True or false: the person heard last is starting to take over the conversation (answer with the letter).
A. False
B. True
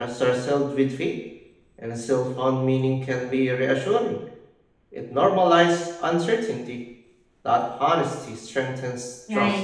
B